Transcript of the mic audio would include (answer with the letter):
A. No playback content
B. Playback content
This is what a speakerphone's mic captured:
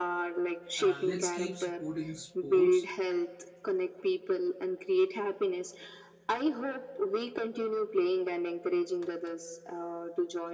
B